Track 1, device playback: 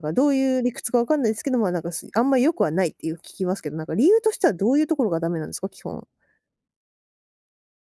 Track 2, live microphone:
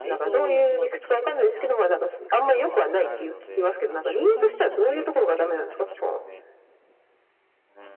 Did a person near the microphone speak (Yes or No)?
Yes